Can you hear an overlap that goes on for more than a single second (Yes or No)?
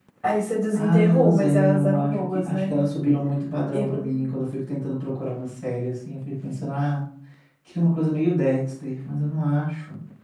Yes